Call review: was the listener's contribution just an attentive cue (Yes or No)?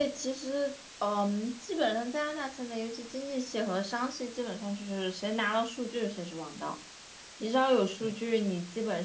Yes